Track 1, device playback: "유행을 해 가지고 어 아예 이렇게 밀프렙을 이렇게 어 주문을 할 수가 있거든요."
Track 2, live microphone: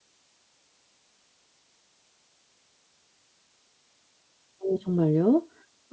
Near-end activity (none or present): present